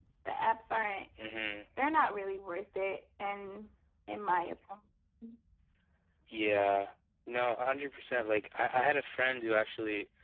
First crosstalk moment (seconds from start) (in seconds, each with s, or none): none